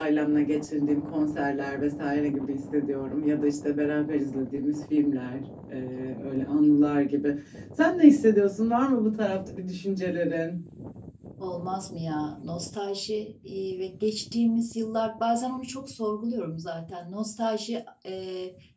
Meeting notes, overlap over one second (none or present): none